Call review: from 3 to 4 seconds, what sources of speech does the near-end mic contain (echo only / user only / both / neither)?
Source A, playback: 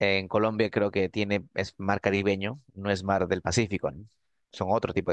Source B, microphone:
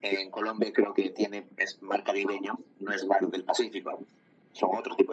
echo only